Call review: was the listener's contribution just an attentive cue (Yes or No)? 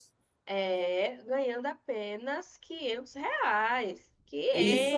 No